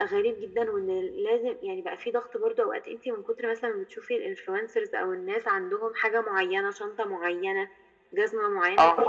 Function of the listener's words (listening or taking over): listening